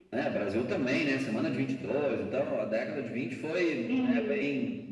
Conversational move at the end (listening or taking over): listening